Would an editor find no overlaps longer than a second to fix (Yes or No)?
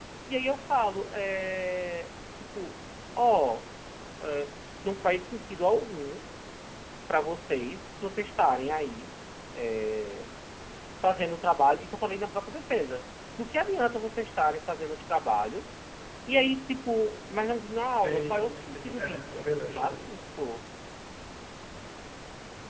No